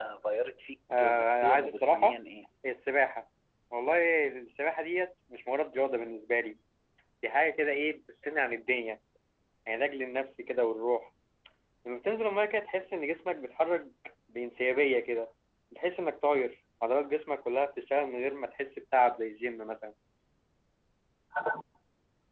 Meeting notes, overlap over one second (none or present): present